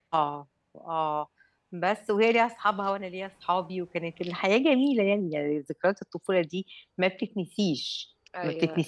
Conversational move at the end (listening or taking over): listening